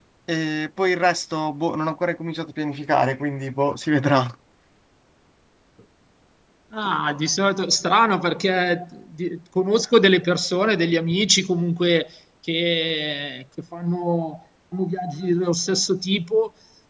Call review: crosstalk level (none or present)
none